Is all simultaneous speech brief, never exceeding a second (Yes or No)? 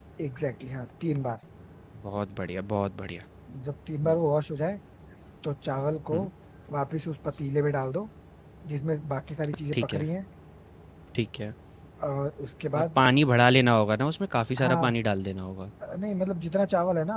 Yes